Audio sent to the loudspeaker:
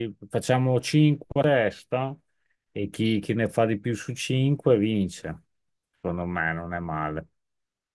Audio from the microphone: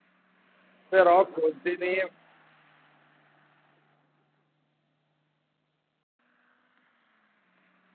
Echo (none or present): none